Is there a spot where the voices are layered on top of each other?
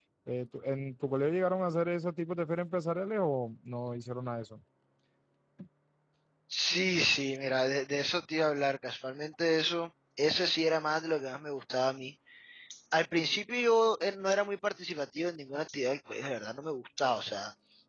No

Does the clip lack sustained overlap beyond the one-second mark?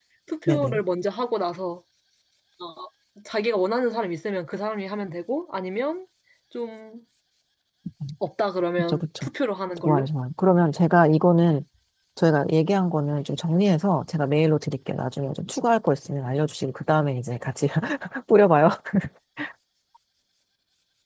Yes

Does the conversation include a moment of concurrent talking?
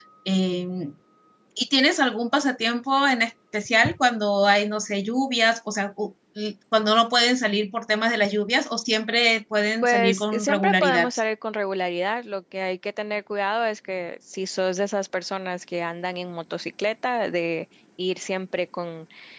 Yes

